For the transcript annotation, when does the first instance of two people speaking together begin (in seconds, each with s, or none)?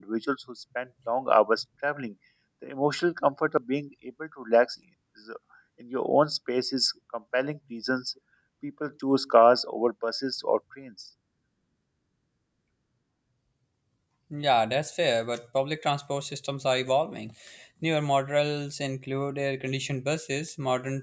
none